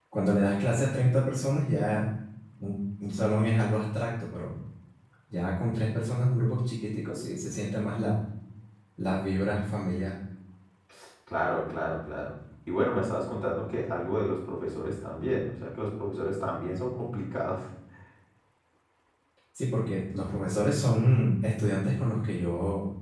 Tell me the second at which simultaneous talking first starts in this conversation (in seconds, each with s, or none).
none